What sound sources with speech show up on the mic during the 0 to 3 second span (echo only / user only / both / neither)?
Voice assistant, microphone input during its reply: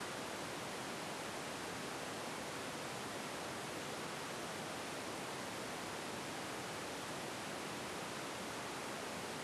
neither